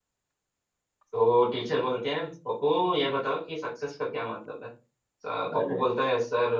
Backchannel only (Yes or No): Yes